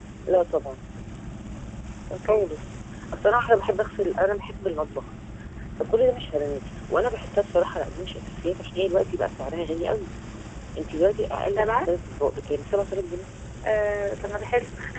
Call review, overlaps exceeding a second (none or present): none